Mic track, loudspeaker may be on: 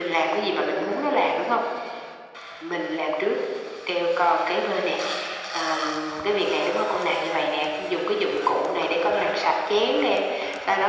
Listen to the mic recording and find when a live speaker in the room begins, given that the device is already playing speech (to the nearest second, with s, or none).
none